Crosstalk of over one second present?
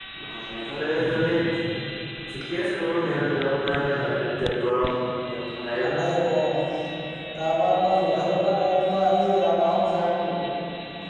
No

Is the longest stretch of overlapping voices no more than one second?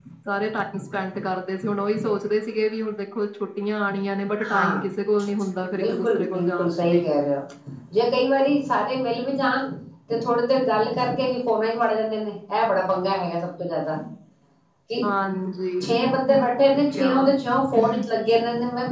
No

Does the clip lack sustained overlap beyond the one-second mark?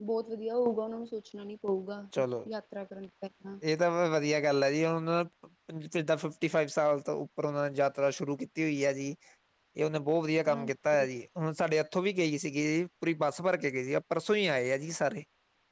Yes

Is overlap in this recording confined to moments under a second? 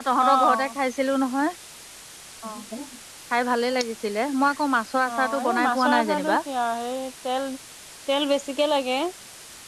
No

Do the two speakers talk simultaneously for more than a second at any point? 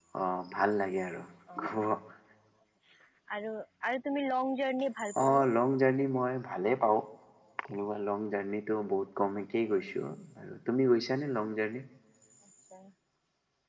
No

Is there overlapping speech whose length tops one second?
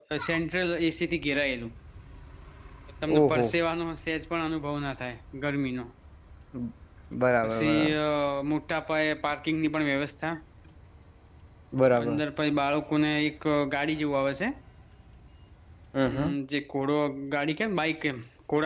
No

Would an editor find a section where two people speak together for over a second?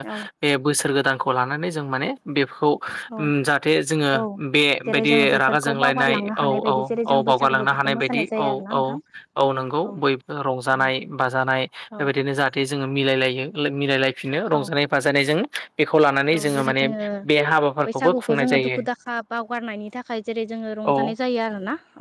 Yes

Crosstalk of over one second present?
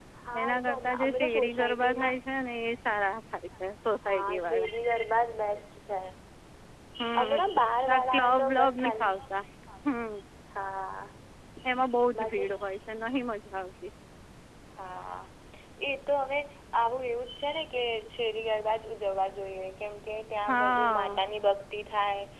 Yes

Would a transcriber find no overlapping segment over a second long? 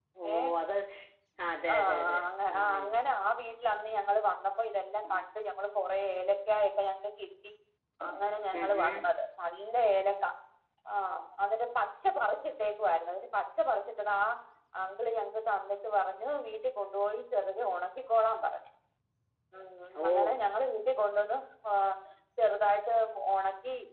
No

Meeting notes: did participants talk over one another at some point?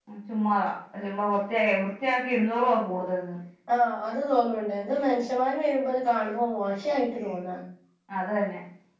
No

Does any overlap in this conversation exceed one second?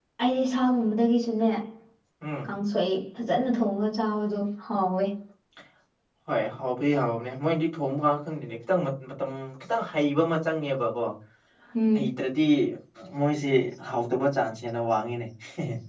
No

